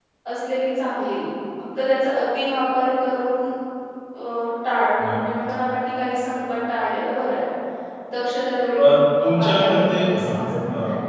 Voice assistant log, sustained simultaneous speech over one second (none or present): present